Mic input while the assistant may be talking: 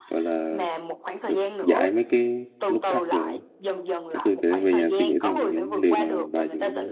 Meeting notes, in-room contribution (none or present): present